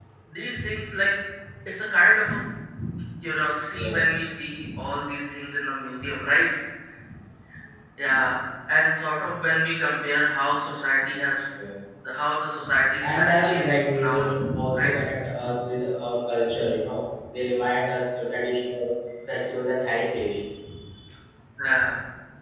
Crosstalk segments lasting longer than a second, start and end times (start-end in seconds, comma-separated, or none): 13.0-14.2